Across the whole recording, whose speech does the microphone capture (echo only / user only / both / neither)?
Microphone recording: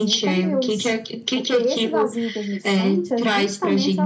both